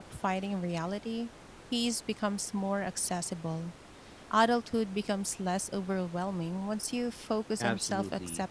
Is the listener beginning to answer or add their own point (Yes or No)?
Yes